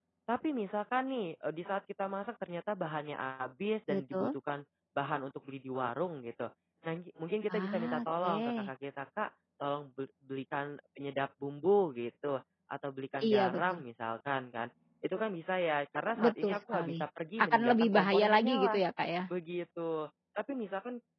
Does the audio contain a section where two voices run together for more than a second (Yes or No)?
Yes